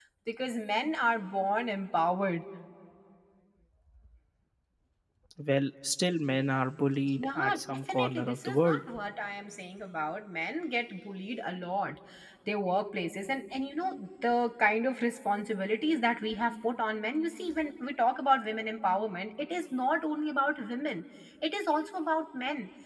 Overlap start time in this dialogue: 7.2 s

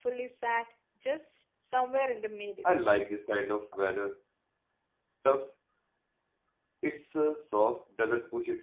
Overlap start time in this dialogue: none

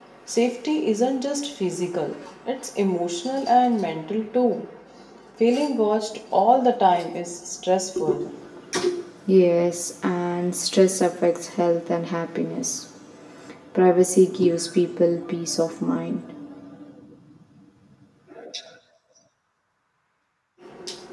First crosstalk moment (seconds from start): none

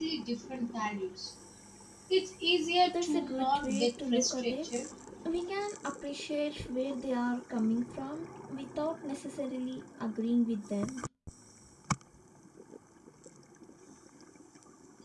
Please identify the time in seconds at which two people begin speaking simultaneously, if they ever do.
2.9 s

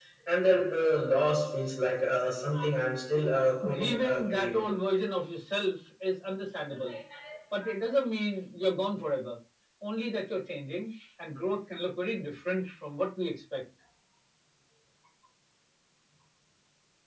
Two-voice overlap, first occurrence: 3.3 s

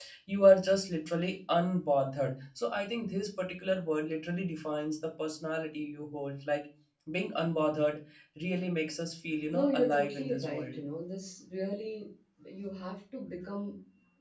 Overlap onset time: 9.5 s

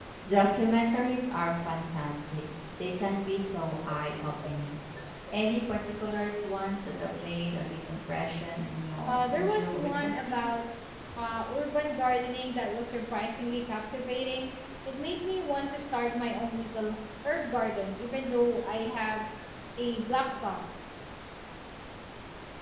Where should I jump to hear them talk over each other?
9.1 s

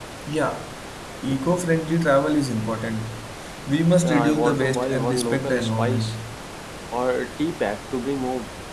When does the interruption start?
4.0 s

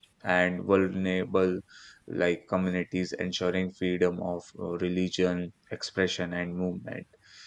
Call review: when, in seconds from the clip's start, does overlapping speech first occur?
none

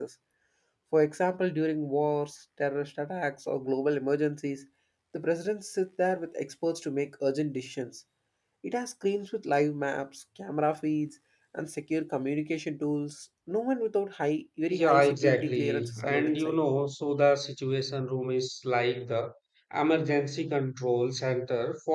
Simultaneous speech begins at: 14.7 s

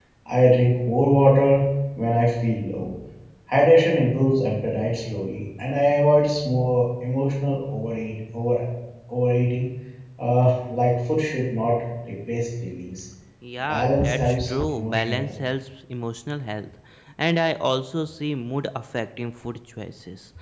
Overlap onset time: 13.7 s

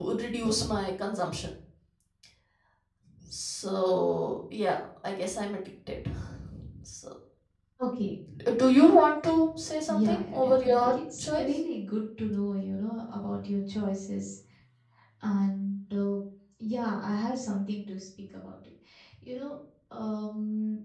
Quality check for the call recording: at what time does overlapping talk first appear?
9.9 s

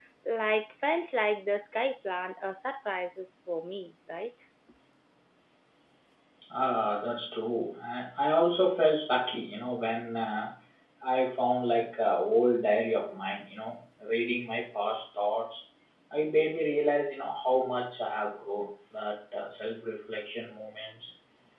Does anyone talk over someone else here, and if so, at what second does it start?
none

